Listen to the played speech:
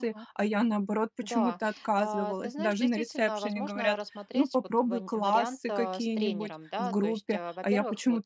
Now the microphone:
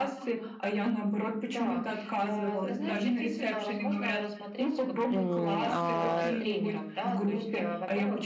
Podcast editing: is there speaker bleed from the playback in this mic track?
Yes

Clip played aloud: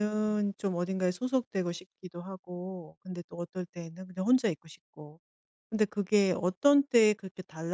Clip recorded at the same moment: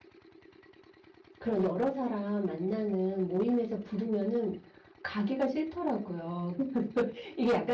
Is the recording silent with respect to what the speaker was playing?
Yes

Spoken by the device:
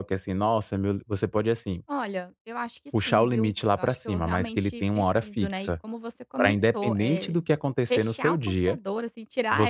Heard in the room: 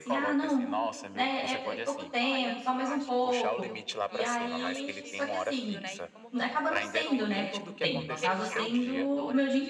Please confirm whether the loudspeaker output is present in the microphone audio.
Yes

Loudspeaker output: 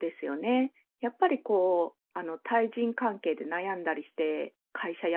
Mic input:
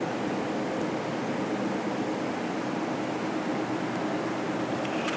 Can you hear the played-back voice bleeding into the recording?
No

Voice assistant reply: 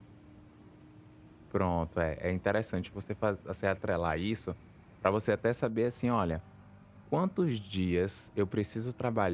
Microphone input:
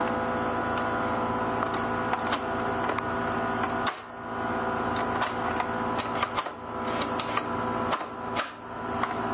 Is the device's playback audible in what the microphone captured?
No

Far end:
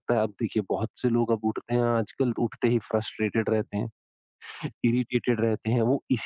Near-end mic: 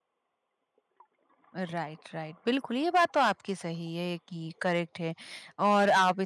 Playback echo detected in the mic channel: No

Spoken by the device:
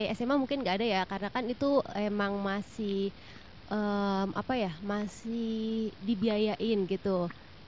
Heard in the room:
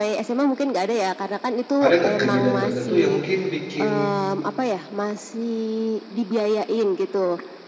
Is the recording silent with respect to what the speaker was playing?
No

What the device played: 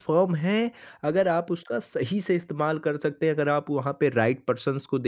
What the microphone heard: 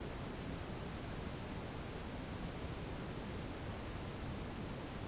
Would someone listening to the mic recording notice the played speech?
No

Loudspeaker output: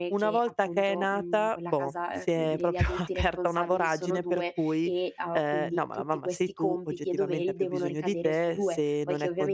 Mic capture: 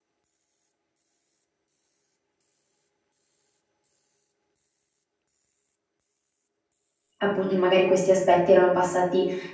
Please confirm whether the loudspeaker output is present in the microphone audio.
No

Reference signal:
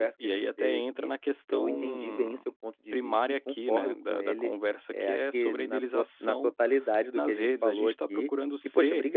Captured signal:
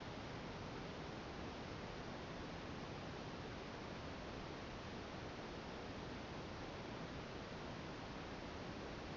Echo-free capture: Yes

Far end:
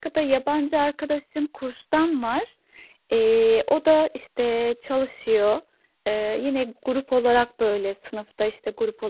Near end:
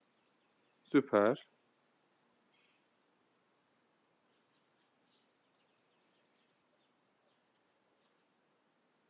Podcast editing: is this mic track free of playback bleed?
Yes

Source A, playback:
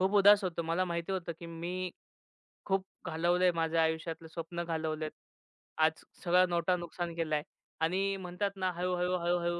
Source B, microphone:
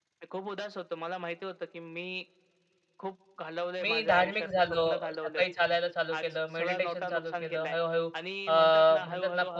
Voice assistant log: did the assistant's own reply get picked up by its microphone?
Yes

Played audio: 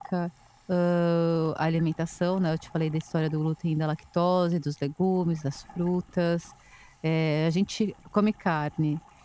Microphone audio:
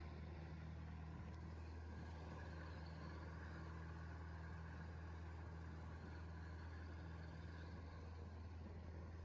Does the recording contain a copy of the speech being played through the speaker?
No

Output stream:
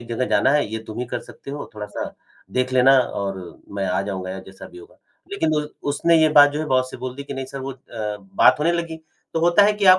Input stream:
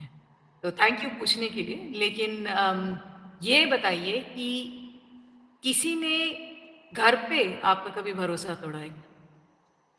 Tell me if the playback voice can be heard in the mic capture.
No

